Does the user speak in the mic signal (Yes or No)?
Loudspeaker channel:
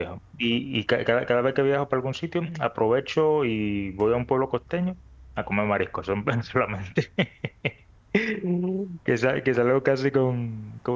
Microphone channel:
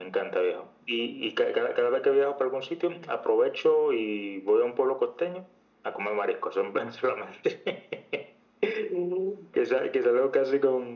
No